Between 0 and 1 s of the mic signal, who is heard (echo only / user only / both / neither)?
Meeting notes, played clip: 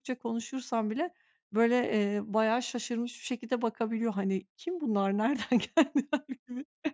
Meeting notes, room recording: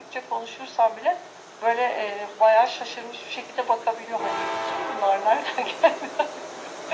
echo only